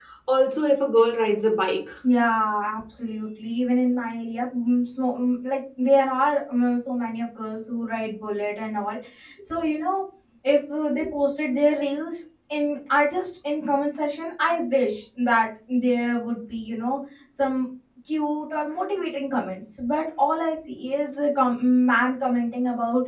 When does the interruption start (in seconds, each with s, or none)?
none